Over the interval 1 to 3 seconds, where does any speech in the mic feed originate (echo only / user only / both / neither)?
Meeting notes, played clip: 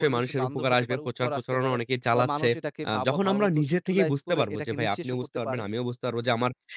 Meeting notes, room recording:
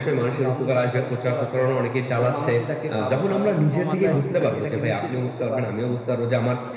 echo only